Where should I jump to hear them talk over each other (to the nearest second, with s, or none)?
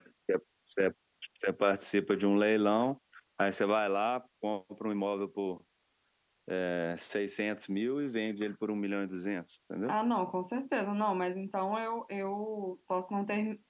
none